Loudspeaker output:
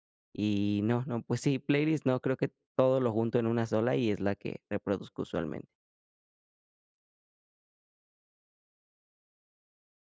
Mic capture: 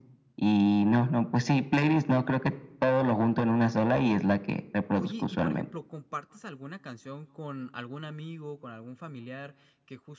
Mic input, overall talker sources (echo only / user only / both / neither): both